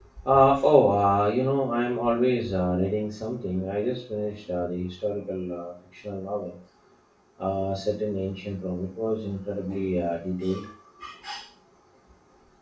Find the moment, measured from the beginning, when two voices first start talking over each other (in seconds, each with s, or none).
none